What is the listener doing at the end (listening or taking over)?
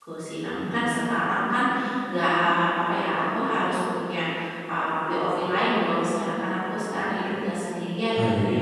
listening